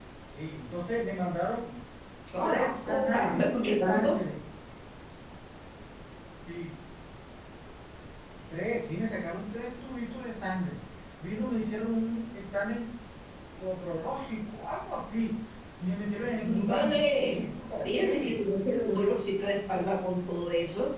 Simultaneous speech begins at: 2.4 s

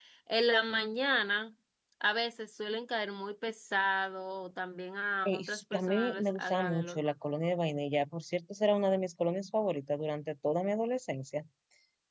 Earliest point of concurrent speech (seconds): 5.2 s

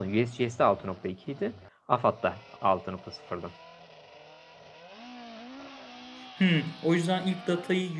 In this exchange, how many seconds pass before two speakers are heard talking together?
none

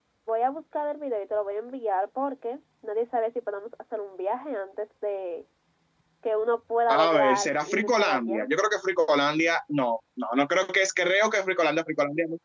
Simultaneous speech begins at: 6.9 s

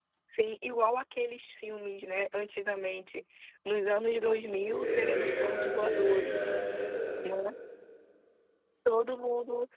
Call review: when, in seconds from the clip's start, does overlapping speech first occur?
4.8 s

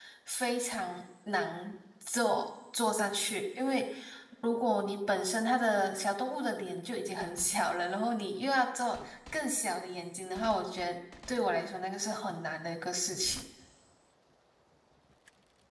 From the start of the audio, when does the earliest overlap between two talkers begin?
none

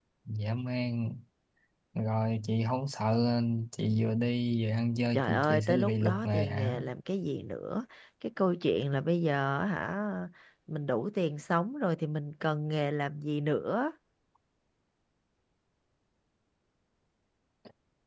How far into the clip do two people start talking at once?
5.1 s

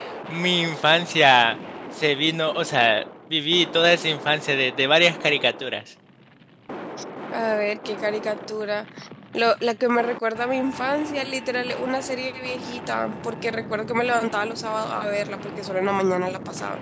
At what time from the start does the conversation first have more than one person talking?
none

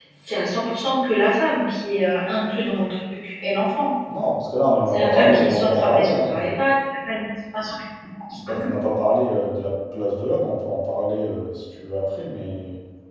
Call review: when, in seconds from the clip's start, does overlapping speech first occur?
4.9 s

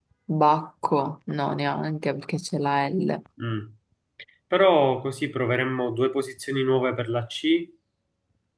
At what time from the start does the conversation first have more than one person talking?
none

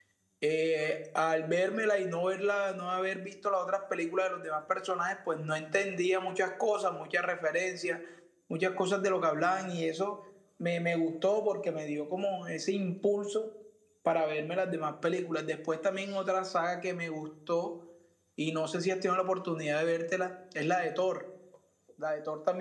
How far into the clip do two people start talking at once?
none

